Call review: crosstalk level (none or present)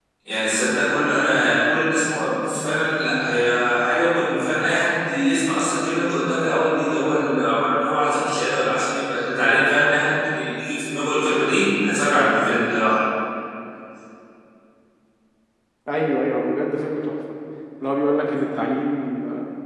none